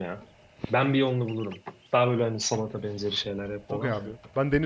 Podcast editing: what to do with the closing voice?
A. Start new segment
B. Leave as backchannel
A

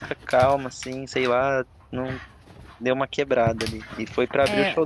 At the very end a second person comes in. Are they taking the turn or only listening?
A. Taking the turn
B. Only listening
A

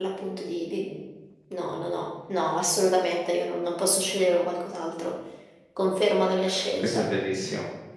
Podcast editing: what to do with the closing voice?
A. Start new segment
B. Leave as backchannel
A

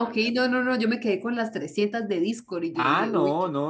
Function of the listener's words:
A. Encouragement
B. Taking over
B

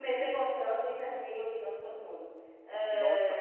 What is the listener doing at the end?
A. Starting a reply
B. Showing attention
A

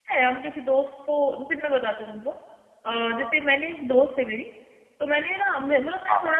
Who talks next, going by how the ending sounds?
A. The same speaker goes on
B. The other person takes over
A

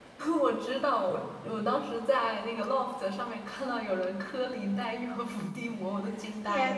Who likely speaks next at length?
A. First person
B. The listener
B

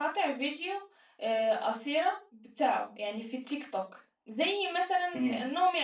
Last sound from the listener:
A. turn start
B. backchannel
B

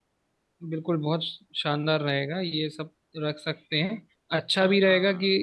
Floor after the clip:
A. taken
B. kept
B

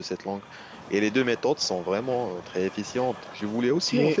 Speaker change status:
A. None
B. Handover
A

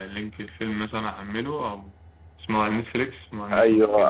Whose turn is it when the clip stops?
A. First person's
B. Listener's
B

